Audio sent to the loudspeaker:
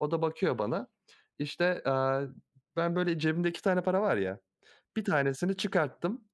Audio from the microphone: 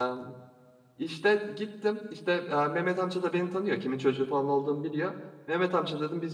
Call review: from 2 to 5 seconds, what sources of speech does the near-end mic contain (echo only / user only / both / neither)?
user only